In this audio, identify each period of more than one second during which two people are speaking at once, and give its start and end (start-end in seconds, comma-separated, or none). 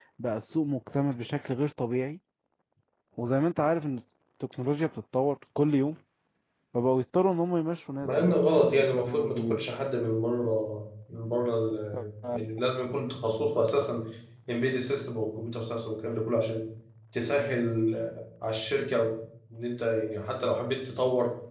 8.0-9.6